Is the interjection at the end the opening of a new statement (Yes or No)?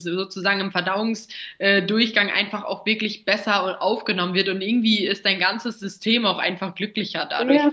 Yes